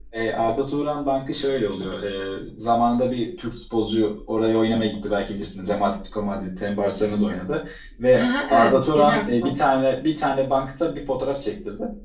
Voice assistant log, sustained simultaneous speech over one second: present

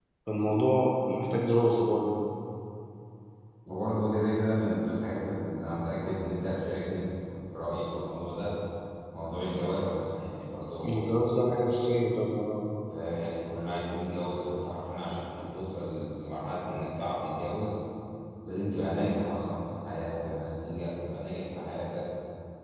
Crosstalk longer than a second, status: none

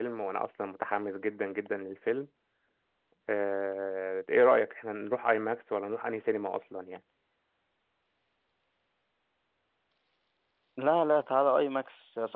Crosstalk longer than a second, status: none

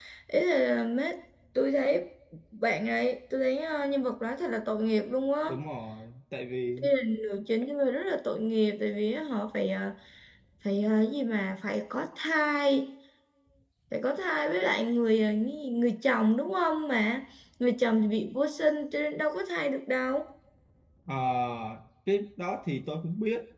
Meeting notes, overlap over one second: none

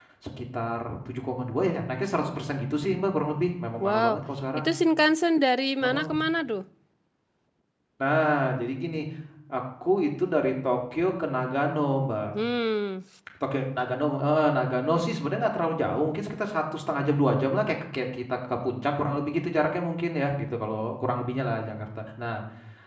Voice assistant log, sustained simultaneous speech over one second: none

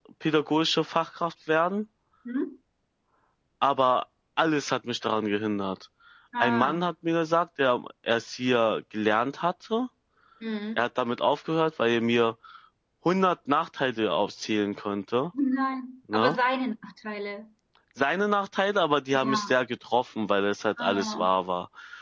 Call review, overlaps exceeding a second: none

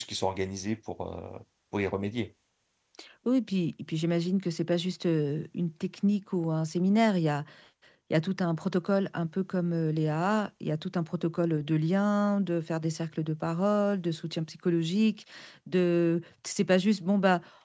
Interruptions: none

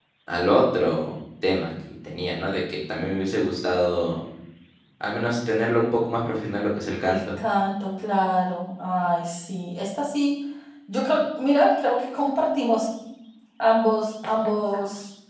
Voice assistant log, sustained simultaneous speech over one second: none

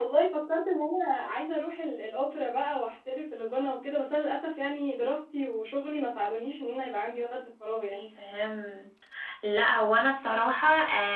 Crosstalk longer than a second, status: none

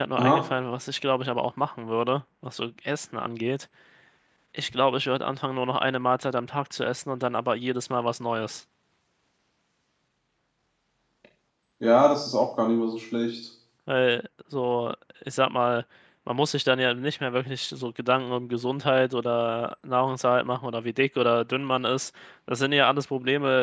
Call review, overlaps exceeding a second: none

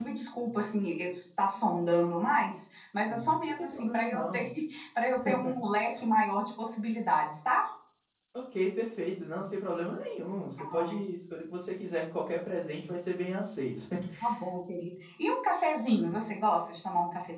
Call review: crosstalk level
present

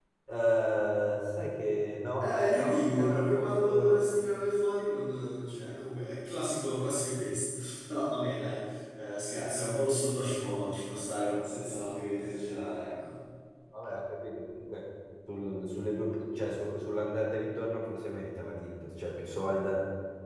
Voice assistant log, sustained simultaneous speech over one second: present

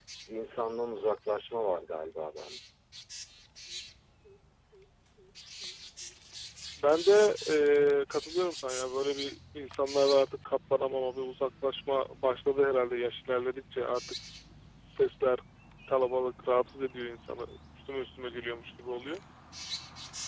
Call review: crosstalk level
none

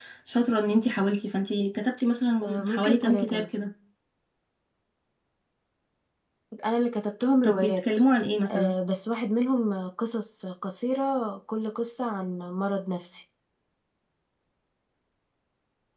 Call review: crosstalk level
present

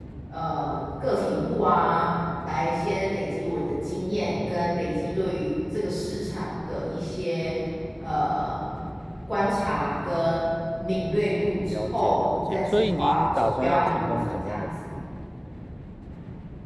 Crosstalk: present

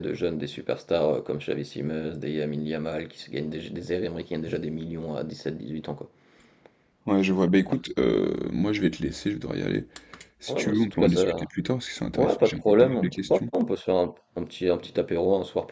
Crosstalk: present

